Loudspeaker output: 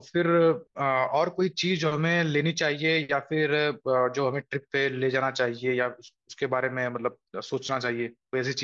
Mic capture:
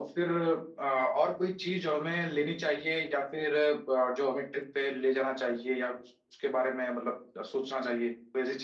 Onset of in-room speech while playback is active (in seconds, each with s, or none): none